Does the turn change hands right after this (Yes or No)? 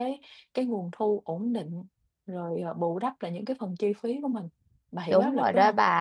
Yes